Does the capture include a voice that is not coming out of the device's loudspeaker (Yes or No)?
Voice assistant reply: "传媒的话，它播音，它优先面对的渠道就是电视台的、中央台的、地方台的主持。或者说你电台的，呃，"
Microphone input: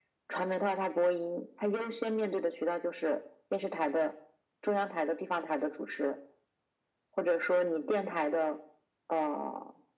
No